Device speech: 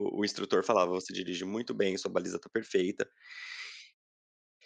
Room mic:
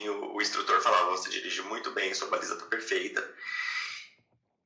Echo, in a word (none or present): present